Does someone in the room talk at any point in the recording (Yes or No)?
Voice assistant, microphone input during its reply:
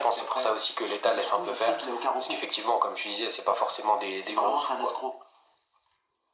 No